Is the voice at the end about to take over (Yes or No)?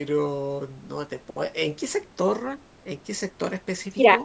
Yes